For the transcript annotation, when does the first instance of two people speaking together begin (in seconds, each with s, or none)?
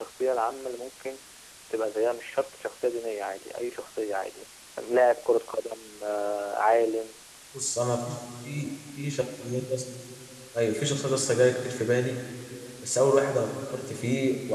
none